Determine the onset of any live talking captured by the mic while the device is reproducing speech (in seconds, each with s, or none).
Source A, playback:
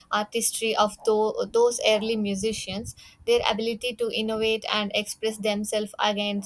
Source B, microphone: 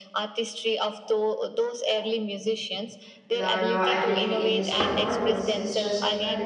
3.3 s